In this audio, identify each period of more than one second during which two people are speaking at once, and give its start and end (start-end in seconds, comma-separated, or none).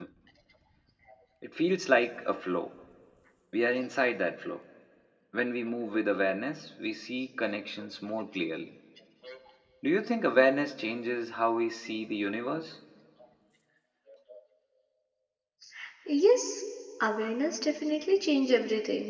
none